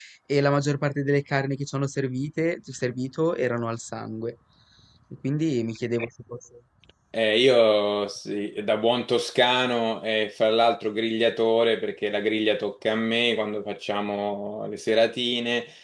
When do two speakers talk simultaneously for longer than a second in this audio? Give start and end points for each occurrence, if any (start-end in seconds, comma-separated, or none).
none